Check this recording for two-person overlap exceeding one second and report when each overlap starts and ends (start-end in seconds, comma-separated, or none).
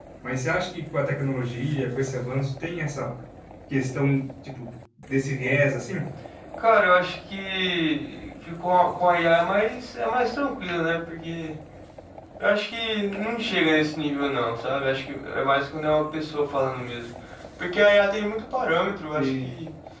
none